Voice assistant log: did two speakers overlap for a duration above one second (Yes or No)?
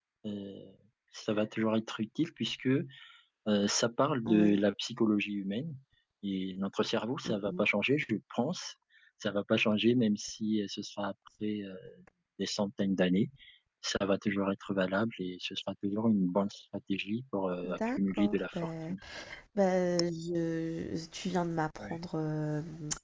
Yes